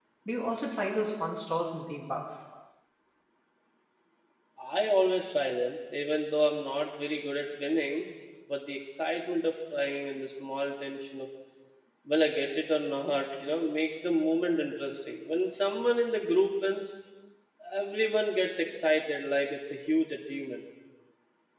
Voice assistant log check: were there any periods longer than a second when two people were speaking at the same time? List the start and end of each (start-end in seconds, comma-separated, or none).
none